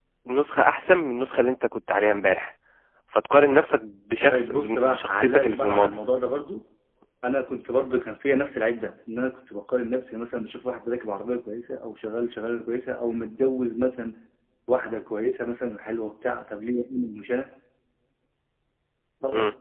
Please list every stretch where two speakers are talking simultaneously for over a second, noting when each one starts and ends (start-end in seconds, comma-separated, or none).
4.3-5.9